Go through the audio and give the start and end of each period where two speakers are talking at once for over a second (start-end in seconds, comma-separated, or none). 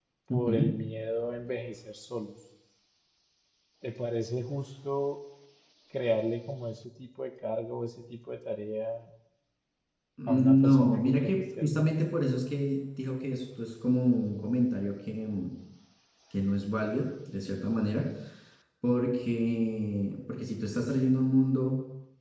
10.3-12.1